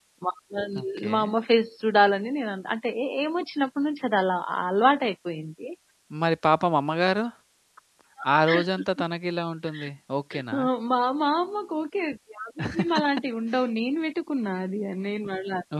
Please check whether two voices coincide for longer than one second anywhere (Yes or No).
No